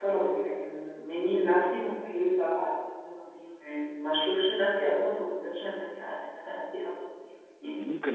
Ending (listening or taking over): taking over